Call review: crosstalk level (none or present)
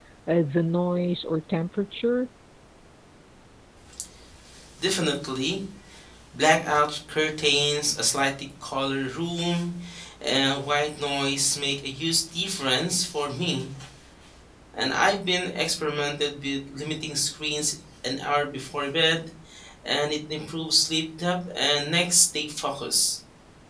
none